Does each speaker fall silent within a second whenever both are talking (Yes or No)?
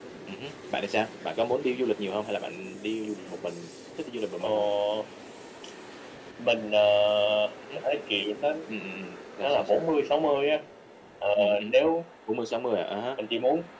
Yes